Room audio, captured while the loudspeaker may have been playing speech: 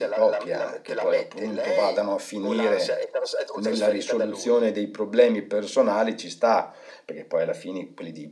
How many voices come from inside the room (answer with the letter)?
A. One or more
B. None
A